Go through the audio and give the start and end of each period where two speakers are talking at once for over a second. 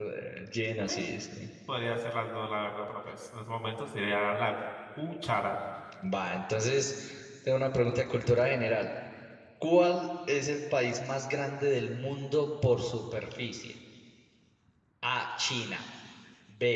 none

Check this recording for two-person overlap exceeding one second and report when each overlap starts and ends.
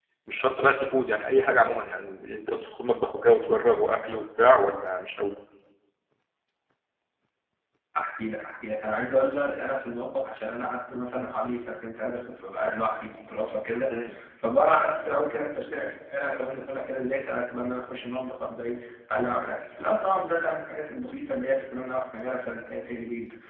none

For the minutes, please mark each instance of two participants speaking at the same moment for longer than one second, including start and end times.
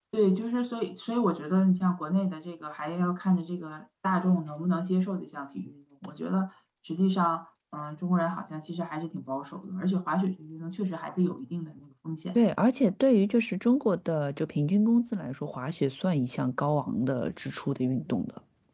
none

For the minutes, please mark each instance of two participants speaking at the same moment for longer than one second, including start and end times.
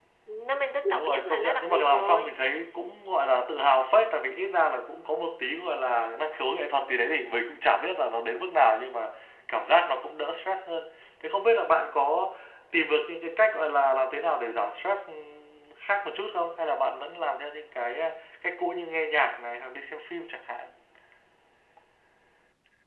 0.9-2.3

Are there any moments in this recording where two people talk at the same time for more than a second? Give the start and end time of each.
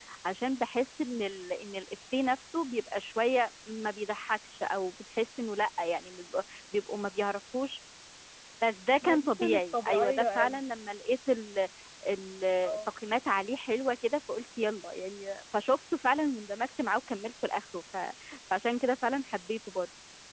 9.0-10.6

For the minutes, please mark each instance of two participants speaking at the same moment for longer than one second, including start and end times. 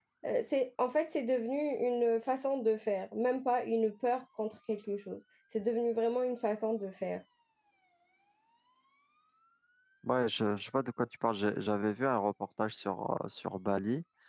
none

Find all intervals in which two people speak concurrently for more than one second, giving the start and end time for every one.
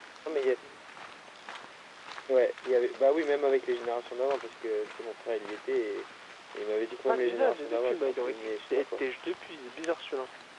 7.1-9.0

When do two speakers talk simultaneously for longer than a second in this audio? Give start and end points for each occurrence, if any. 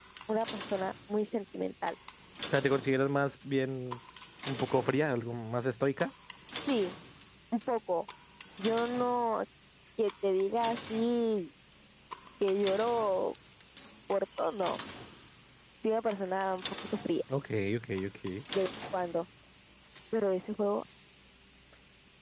none

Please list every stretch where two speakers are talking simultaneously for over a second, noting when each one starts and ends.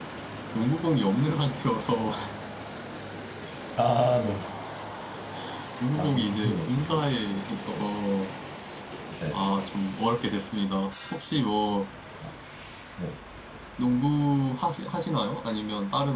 6.0-7.2

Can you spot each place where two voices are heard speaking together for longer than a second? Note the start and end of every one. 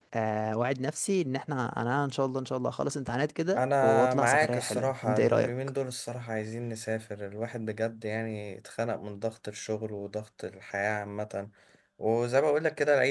3.6-5.5

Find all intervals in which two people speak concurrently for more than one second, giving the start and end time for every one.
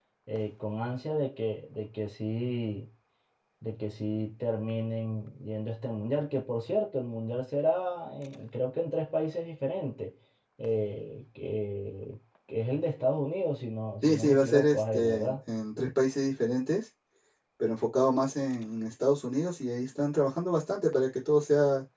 14.0-15.3

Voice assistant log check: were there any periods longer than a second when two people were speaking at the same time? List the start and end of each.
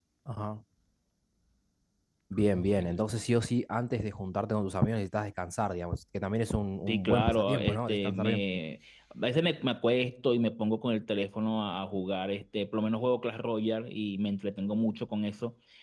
6.9-8.4

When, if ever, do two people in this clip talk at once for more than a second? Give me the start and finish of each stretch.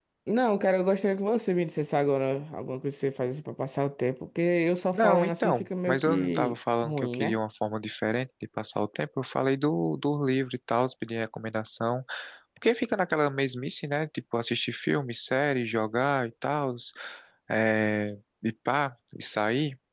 4.9-7.4

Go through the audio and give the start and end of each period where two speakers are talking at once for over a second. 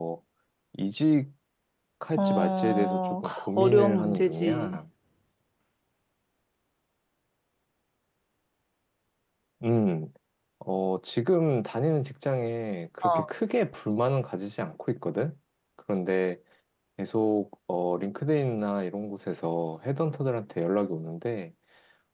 2.3-4.8

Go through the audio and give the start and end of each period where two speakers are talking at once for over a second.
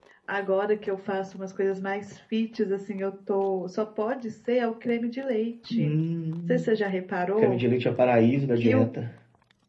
none

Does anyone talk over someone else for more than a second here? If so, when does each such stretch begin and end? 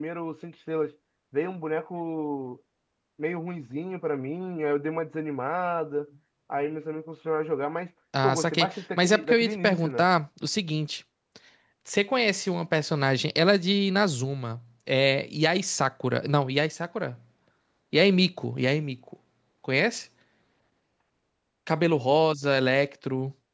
8.2-10.1

